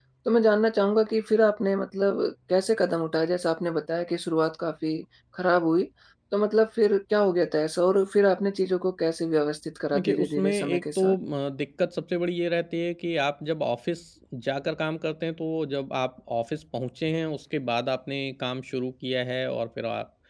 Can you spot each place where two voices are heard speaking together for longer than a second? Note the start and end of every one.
10.0-11.2

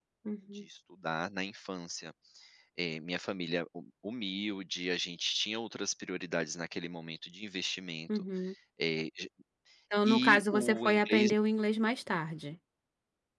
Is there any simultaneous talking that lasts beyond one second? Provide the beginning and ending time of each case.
10.0-11.3

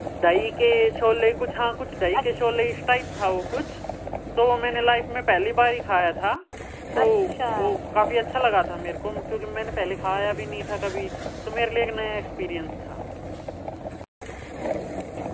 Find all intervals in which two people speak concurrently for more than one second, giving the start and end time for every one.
none

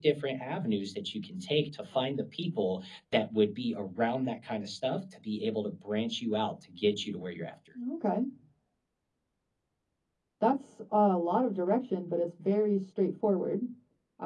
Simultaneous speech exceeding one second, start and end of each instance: none

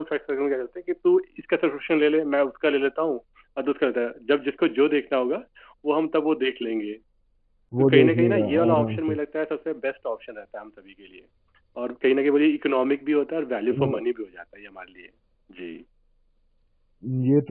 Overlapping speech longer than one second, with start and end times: 7.8-9.2

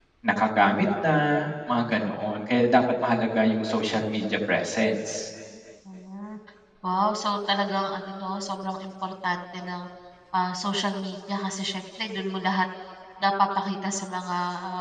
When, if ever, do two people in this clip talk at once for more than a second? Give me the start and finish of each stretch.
none

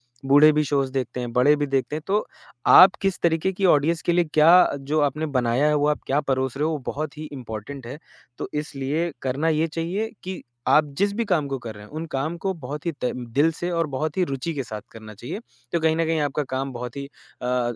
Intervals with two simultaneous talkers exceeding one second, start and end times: none

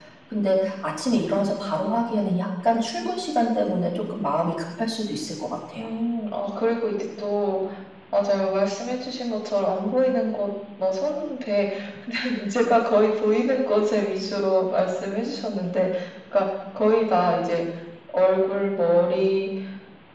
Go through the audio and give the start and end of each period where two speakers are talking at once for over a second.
none

